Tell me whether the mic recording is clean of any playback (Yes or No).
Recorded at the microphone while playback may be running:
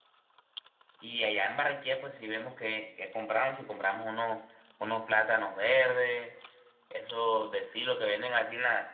Yes